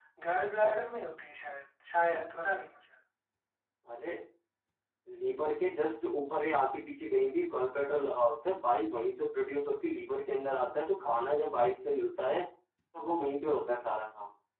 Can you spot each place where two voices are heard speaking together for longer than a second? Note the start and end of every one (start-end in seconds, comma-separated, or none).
none